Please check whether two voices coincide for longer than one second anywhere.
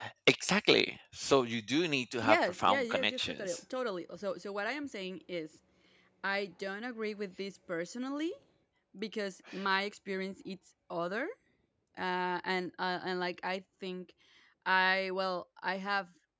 Yes, from 2.2 s

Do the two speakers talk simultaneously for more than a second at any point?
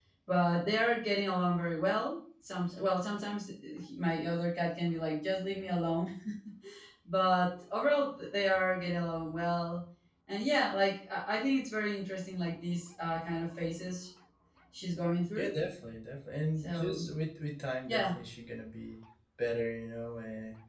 No

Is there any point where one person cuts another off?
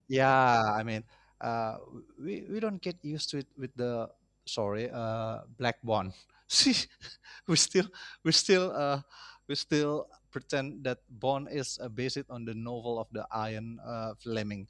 No

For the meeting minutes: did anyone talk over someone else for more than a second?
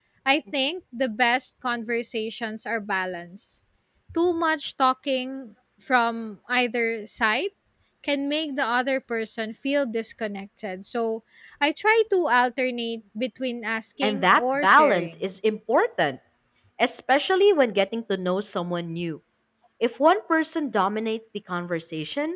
Yes, from 14.0 s

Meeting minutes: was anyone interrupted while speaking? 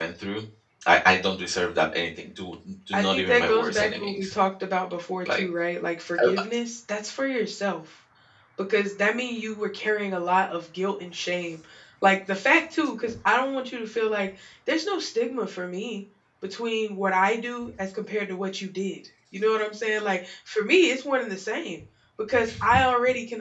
Yes, from 2.9 s

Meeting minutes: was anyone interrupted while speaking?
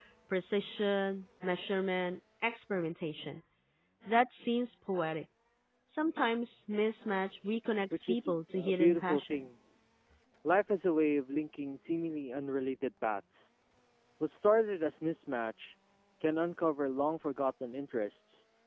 Yes, from 7.9 s

